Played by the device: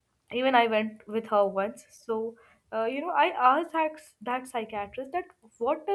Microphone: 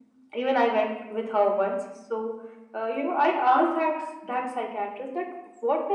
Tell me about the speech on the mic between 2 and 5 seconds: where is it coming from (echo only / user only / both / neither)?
echo only